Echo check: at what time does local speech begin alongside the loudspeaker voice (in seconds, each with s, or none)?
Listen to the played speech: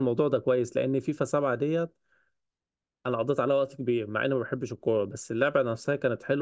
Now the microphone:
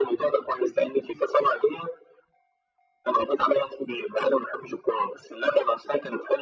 none